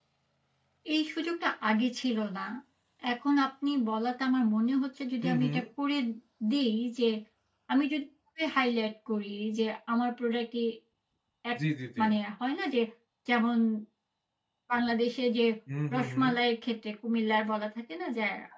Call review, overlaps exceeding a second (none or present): none